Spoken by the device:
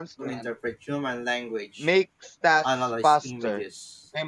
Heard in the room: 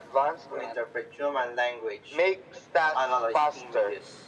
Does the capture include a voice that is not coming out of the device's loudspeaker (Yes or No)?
No